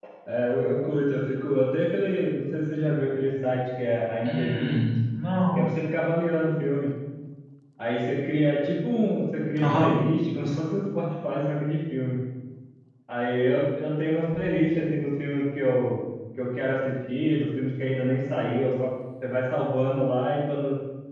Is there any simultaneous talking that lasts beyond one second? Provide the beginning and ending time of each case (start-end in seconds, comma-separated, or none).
none